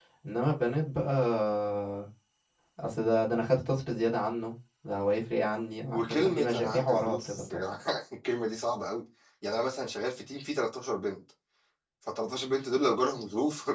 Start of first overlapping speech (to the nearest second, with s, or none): 6 s